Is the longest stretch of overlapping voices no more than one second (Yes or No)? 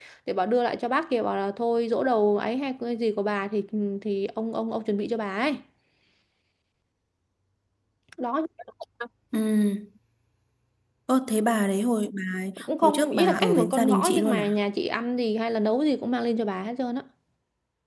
No